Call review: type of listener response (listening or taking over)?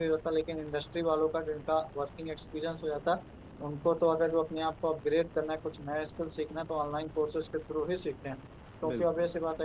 listening